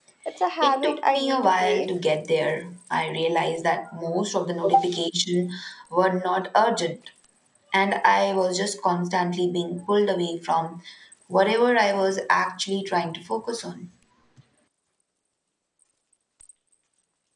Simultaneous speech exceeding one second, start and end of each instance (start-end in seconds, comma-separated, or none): 0.6-1.9